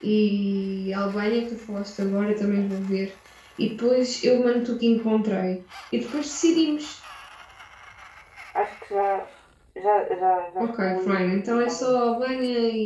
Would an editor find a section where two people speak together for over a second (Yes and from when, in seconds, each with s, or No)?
Yes, from 10.6 s